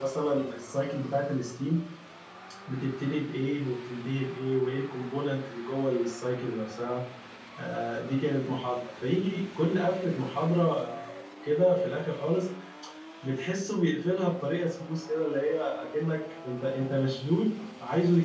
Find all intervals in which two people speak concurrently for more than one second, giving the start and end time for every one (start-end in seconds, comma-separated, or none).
none